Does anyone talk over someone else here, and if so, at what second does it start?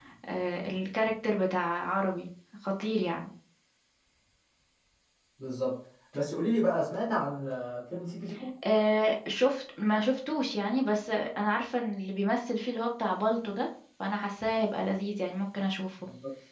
none

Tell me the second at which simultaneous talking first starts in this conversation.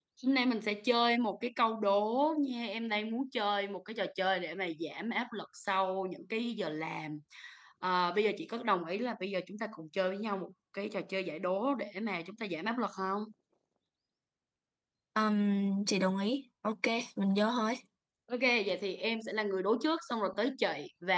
none

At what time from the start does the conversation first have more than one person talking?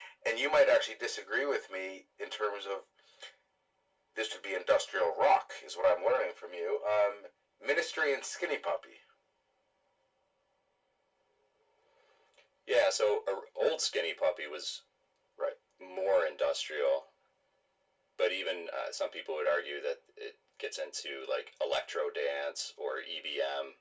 none

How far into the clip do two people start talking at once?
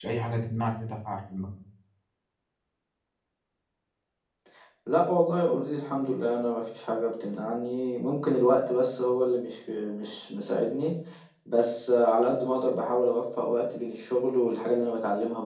none

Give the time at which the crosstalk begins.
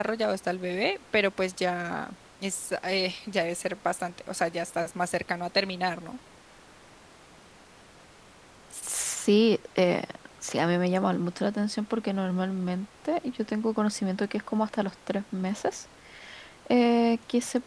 none

